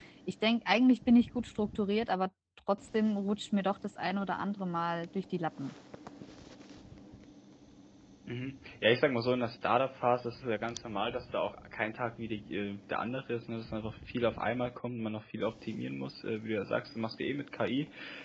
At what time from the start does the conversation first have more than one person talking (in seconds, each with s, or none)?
none